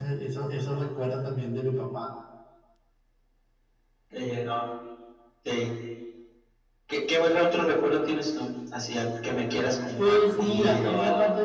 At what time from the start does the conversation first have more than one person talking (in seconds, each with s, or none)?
10.0 s